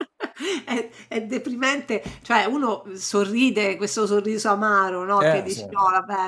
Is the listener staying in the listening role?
Yes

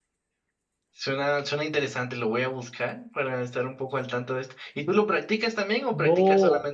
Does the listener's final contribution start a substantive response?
Yes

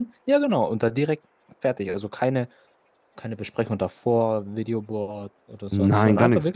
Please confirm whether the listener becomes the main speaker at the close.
Yes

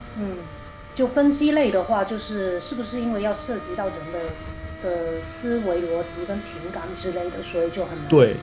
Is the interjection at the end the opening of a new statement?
Yes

